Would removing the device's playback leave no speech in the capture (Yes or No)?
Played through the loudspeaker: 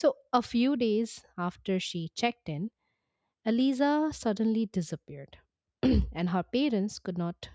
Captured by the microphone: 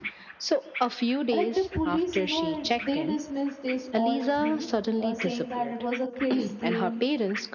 No